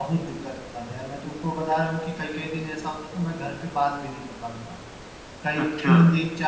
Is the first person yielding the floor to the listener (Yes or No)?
No